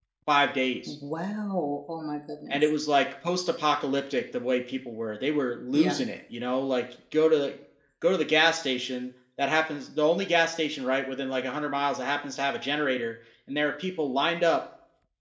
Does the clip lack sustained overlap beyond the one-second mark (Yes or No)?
Yes